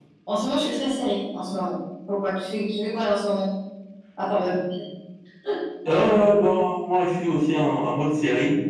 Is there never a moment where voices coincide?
Yes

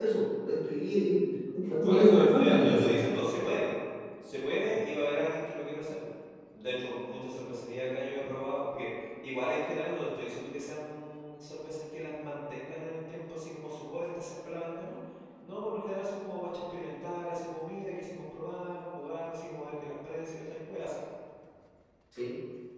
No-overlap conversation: No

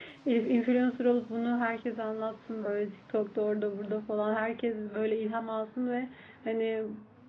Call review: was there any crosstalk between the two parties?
No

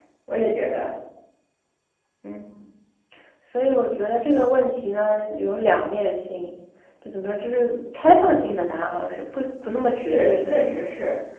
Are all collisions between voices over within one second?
No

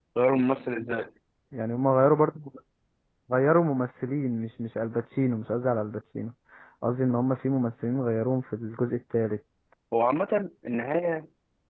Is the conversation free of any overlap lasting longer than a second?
Yes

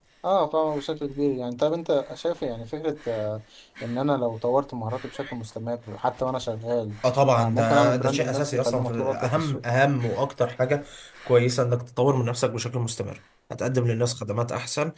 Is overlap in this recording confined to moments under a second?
No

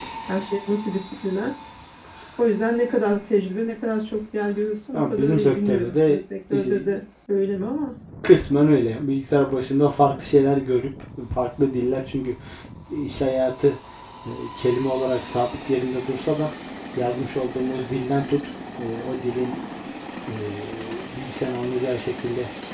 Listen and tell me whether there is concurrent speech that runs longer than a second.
Yes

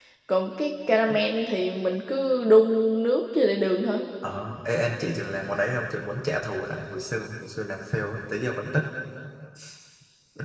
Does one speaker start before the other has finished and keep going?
No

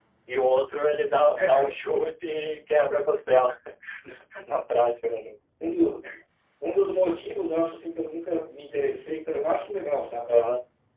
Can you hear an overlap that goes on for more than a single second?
No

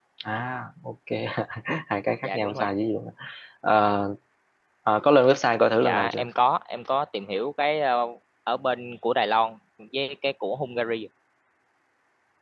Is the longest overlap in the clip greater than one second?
No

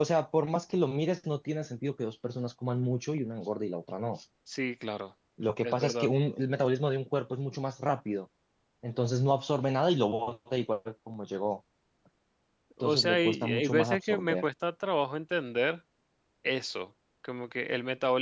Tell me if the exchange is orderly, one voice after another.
No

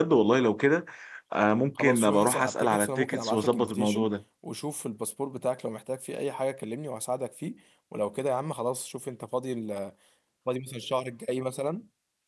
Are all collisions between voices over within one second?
No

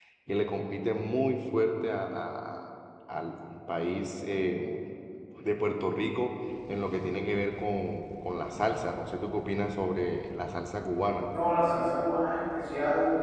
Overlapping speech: No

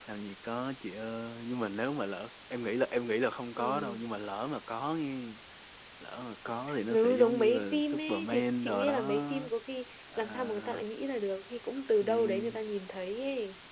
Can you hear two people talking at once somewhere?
Yes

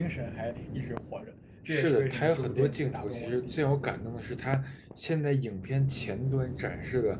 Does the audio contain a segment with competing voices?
Yes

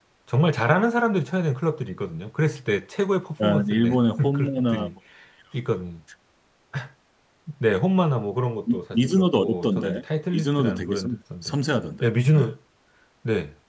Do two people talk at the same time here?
Yes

